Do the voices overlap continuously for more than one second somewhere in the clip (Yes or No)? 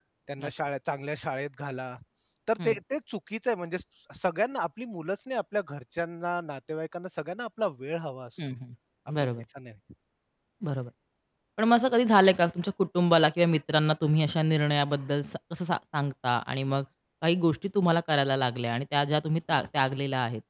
No